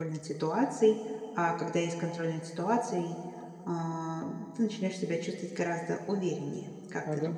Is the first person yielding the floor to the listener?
Yes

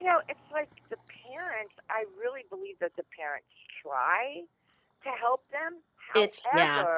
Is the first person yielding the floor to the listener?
No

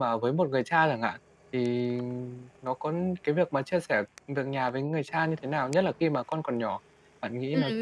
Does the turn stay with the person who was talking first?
No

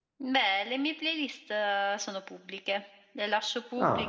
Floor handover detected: No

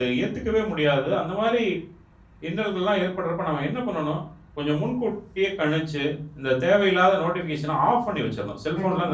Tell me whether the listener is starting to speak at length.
No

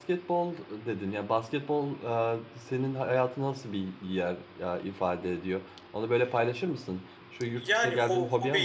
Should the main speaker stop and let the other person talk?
Yes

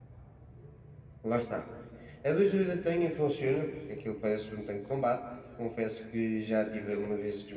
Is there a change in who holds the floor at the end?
No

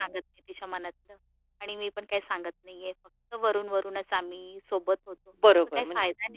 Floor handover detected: Yes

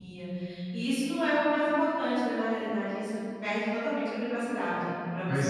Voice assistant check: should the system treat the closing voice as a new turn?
Yes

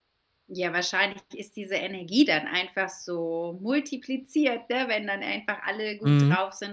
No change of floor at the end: Yes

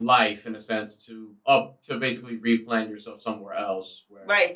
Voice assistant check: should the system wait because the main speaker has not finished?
No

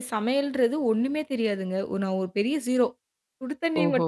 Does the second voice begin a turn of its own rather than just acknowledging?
No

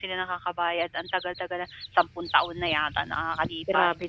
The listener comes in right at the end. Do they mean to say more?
Yes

